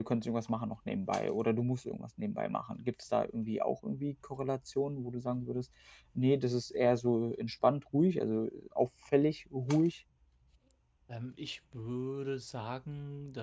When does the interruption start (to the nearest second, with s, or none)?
none